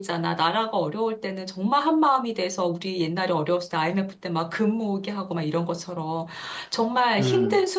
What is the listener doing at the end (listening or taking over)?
listening